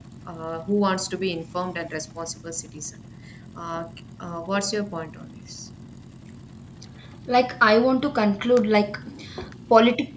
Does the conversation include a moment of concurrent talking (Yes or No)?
No